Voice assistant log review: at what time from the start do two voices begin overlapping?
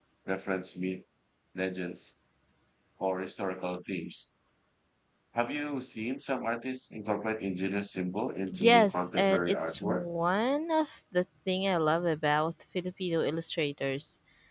9 s

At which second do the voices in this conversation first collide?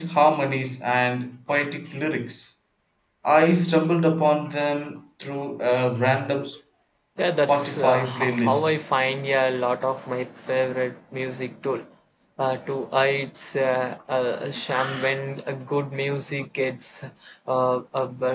7 s

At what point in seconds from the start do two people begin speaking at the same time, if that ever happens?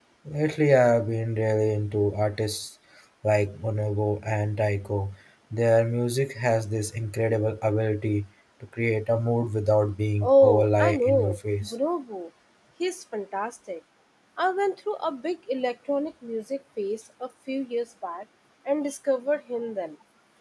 10 s

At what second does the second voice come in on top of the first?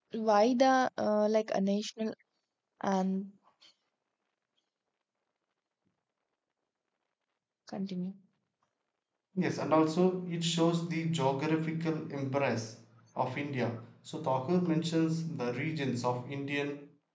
none

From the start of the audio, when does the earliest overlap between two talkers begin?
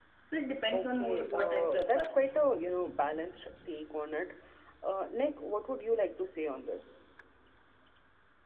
1 s

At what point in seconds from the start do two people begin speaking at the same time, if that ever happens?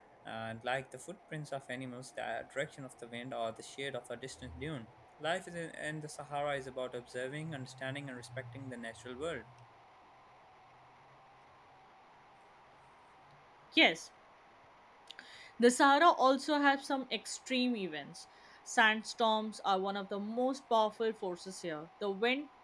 none

